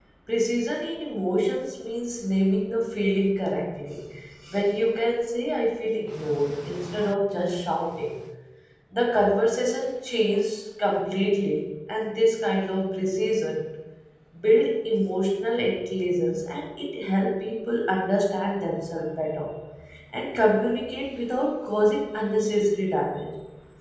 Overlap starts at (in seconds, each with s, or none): none